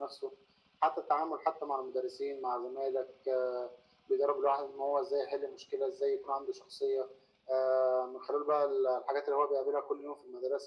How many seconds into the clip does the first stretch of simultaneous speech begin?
none

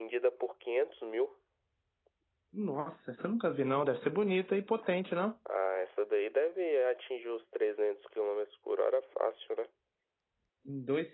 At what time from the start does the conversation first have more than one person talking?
none

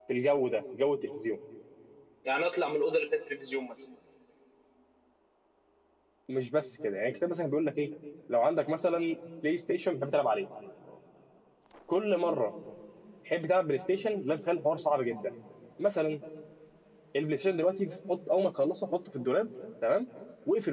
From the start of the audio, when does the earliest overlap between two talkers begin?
none

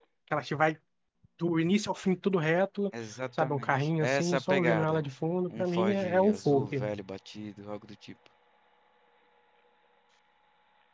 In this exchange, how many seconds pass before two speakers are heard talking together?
3.4 s

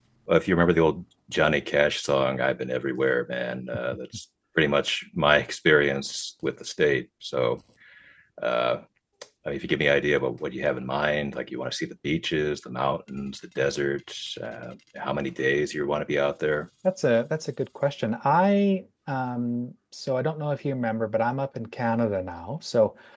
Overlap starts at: none

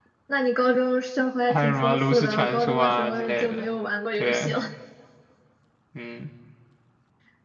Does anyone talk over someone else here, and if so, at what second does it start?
1.5 s

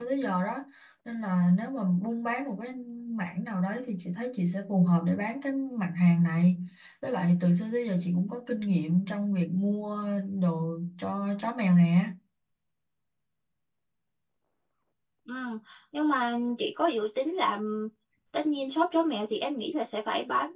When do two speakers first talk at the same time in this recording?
none

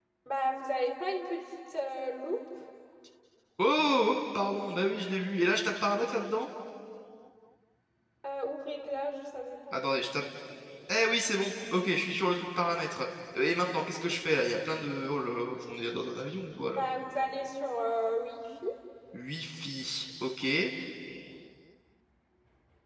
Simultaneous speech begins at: none

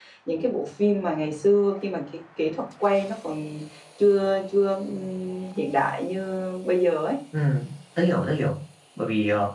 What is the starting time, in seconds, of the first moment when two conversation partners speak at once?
none

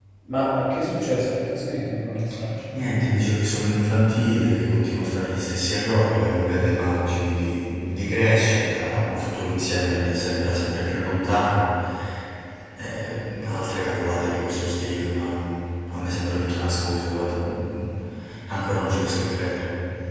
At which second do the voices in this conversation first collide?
none

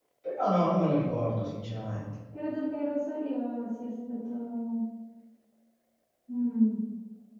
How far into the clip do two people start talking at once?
none

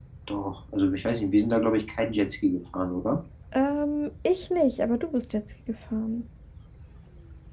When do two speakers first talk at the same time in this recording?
none

